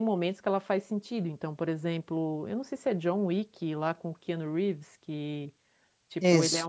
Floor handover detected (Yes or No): No